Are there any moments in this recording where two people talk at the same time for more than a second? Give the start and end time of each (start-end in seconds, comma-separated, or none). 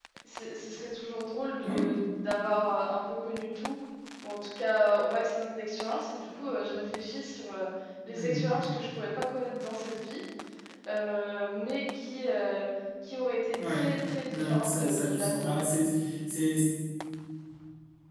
14.3-15.6